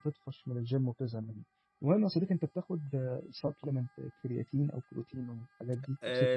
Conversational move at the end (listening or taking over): taking over